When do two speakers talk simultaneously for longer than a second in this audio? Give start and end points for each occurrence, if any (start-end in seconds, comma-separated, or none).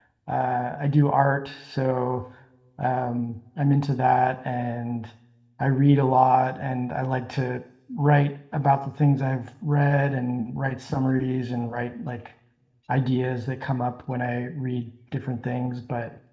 none